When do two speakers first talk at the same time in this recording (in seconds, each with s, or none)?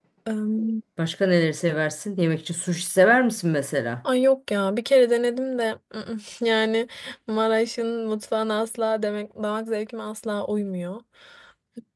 none